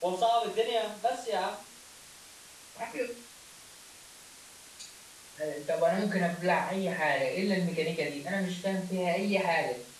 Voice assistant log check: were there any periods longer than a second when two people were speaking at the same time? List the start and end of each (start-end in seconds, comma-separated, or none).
none